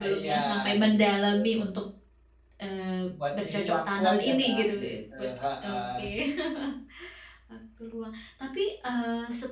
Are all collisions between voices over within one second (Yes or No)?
No